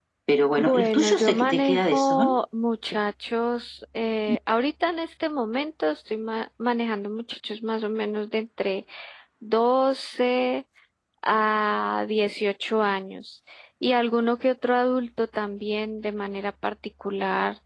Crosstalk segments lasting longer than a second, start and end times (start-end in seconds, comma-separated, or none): 0.6-2.4